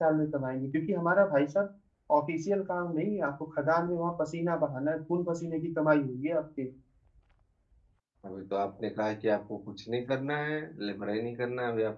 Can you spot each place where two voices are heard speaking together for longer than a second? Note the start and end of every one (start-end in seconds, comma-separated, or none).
none